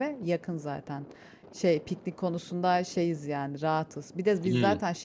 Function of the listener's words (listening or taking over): listening